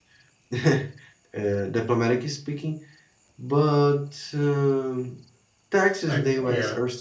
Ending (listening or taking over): listening